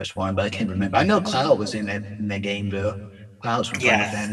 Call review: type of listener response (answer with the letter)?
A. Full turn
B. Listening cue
A